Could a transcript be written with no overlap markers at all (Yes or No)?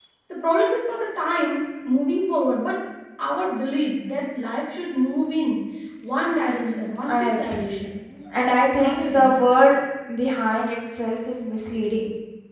No